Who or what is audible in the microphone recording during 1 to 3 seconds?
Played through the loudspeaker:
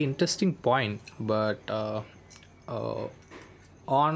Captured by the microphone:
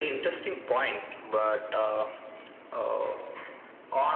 echo only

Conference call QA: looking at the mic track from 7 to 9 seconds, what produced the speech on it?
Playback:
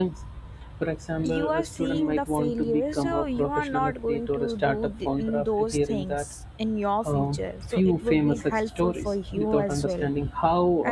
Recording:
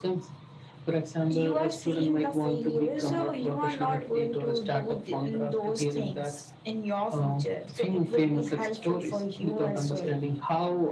echo only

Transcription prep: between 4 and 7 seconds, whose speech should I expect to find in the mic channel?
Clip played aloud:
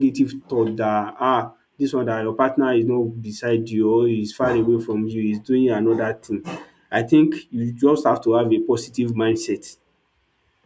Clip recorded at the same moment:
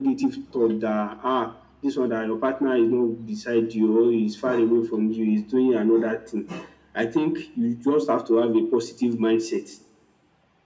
echo only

